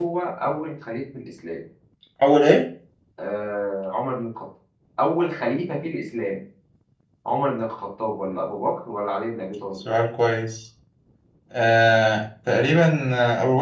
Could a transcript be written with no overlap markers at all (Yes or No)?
Yes